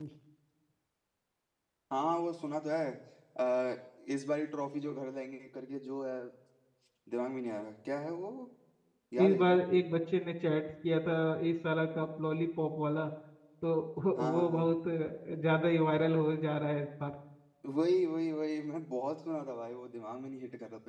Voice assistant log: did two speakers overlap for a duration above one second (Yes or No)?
No